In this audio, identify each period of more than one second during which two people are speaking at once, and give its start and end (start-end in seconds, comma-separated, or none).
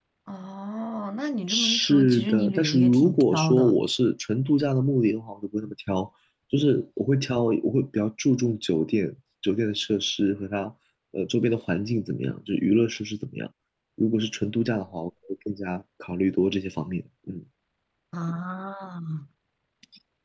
1.5-3.8